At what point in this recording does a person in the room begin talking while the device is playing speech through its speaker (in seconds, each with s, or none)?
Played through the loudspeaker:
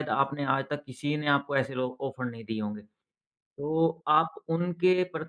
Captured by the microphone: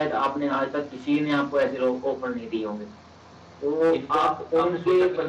3.9 s